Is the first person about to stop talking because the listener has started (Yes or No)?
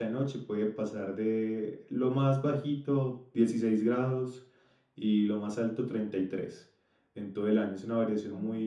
No